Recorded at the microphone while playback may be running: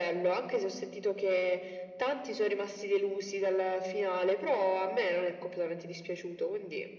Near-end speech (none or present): none